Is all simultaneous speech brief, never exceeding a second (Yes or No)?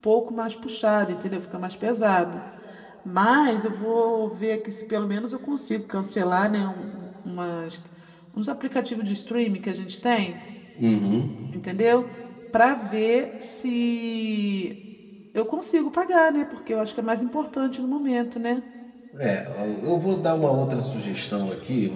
Yes